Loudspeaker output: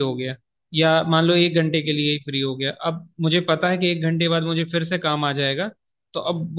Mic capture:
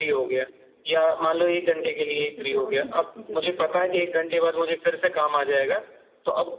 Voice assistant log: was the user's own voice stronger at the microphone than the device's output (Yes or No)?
No